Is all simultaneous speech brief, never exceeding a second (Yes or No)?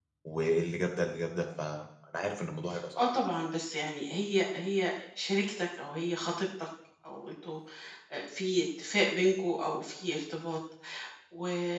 Yes